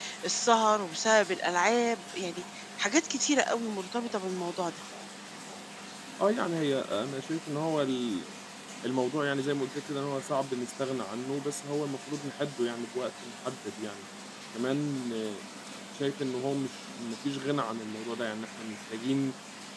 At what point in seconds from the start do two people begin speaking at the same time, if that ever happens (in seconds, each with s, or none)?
none